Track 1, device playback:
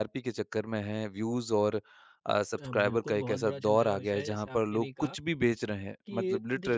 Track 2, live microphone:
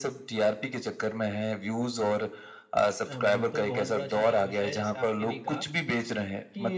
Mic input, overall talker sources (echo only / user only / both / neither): echo only